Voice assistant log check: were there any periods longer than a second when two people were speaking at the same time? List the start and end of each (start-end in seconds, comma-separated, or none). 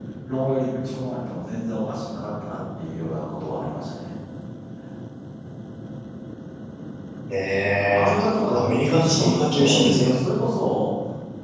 8.5-10.2